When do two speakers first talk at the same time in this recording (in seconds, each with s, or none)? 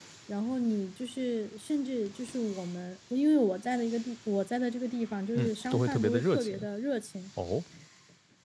5.3 s